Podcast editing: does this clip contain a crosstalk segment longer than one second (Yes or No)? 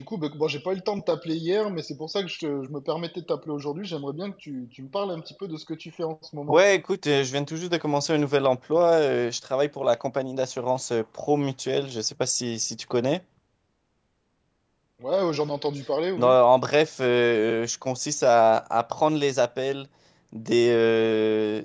No